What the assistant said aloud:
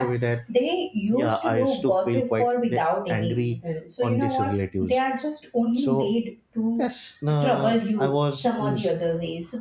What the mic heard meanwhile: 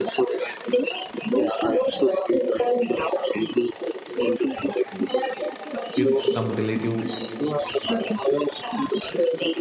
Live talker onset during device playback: 5.9 s

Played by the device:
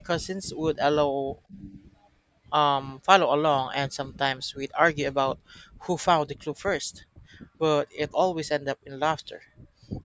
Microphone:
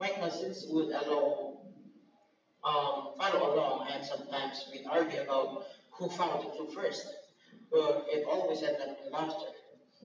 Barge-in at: none

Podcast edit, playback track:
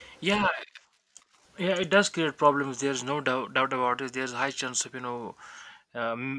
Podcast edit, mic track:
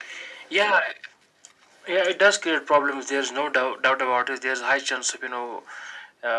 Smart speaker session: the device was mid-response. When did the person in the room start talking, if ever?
none

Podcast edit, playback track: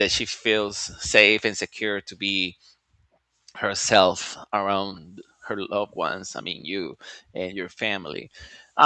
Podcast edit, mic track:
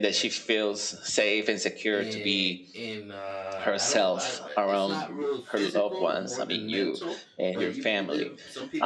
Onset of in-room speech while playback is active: 1.9 s

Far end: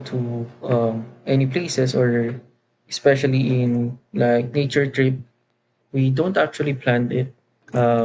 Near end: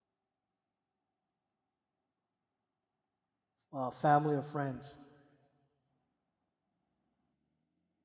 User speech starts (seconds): 3.7 s

